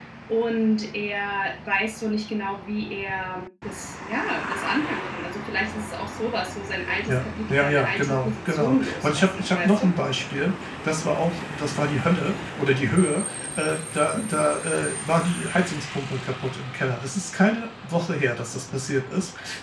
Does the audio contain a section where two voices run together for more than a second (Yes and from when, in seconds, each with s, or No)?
Yes, from 7.1 s